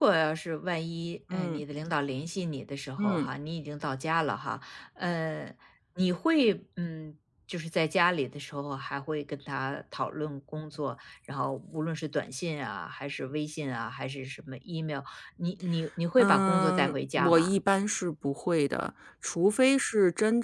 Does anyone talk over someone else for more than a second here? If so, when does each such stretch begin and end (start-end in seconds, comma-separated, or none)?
16.2-17.5